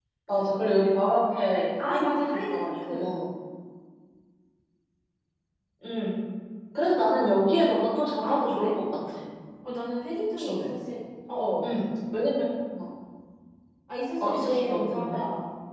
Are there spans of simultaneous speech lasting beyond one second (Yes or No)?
Yes